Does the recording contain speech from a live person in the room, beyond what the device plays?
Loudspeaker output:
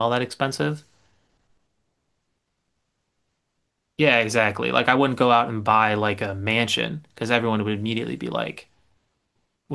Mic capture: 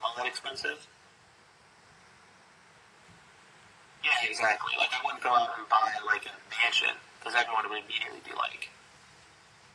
No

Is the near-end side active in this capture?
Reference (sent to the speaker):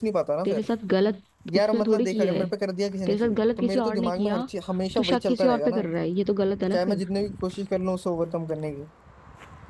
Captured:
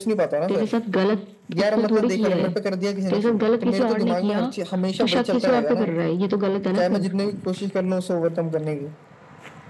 No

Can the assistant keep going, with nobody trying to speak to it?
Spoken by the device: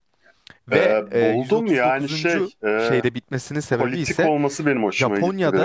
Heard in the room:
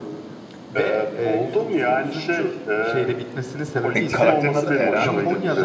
No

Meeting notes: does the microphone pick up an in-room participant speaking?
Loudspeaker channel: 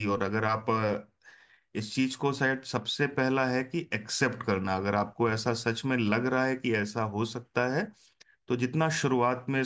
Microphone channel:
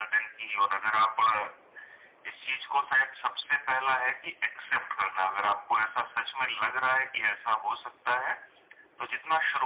No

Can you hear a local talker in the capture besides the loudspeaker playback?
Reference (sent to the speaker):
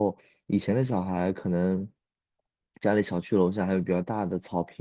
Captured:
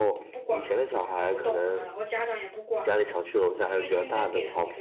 Yes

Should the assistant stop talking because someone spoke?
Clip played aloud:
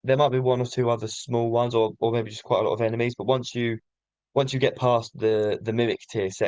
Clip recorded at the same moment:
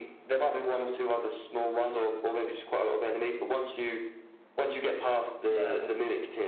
Yes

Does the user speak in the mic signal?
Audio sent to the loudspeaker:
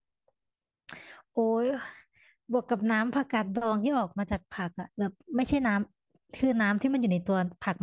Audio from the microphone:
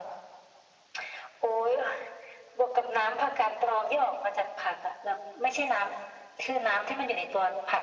No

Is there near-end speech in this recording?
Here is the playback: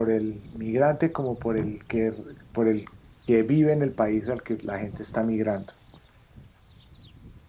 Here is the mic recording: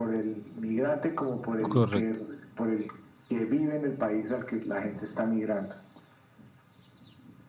Yes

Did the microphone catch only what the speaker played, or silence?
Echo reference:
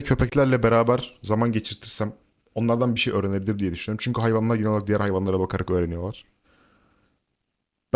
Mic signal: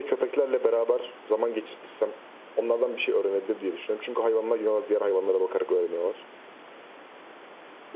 Yes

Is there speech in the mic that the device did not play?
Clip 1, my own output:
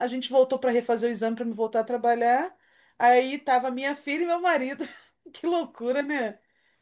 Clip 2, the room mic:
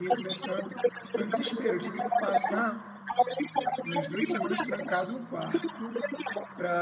Yes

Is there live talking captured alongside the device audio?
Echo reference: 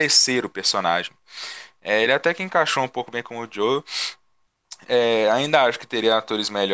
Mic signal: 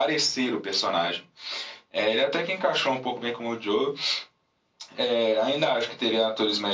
No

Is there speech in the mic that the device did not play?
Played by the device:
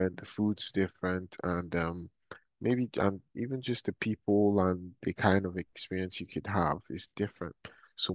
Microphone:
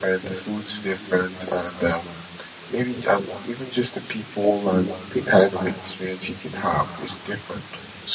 No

